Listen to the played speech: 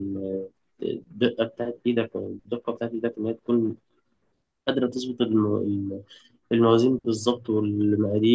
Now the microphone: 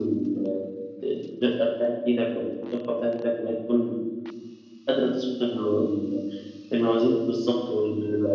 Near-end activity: none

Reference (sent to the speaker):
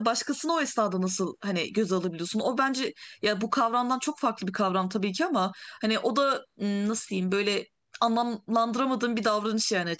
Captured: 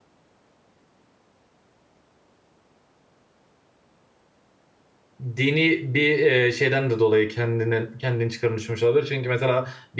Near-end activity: present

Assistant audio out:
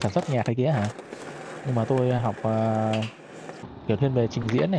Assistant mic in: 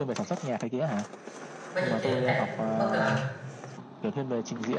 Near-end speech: present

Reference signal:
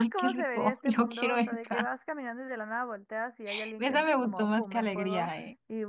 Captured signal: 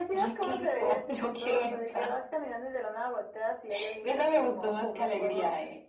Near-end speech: none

